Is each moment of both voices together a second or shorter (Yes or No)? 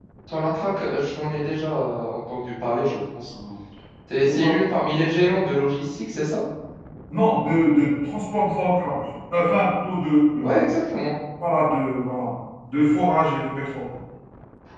Yes